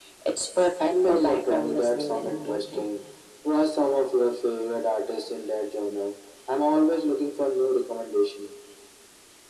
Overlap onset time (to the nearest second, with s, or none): 1 s